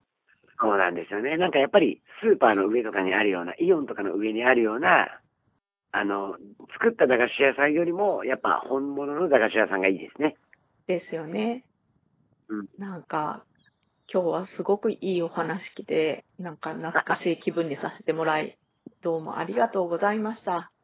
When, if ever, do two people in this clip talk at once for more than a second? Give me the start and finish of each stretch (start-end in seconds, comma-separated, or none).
none